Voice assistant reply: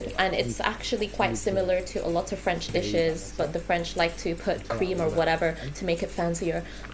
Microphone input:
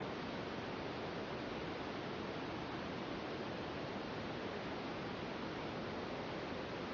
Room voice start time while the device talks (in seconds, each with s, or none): none